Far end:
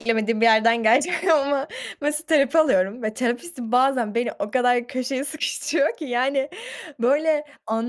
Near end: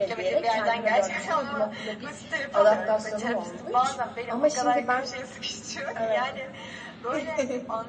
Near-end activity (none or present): present